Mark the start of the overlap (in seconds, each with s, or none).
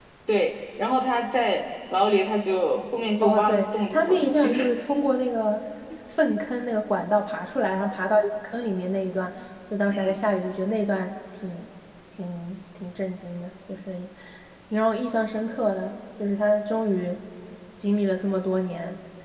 3.2 s